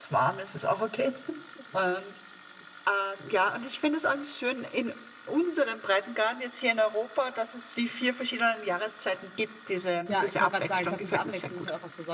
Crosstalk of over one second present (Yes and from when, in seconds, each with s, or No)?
Yes, from 10.1 s